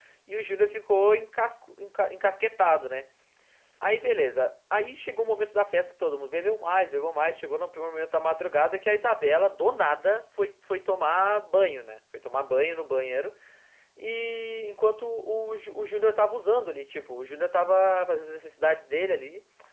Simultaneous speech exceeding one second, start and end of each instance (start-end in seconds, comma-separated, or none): none